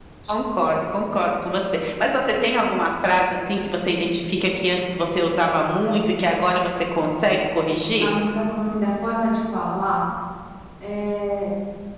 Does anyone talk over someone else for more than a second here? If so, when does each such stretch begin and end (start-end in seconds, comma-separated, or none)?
none